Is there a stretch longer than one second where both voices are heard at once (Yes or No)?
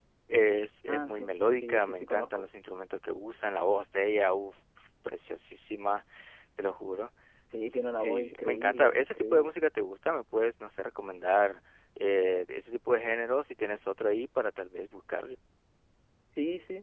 Yes